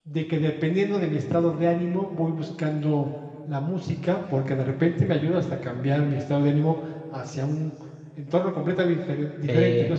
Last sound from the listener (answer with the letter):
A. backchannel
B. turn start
A